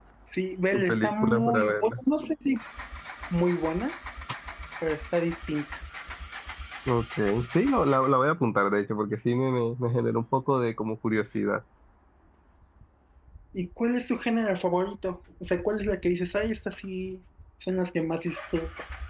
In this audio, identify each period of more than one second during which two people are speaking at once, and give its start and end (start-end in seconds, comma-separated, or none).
0.7-2.0